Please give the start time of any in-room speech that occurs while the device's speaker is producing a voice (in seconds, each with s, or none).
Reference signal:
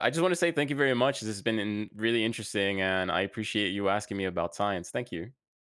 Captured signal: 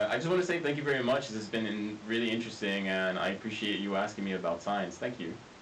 none